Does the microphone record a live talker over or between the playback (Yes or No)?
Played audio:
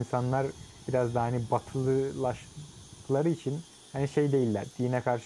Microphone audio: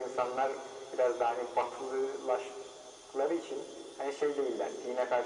No